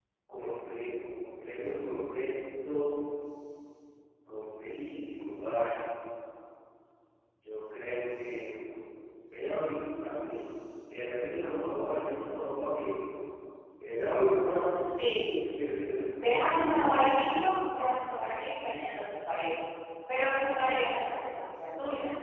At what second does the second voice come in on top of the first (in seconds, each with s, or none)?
none